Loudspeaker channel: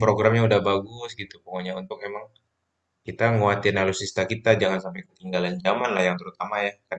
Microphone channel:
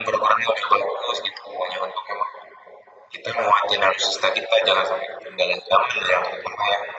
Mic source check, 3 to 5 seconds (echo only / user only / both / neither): echo only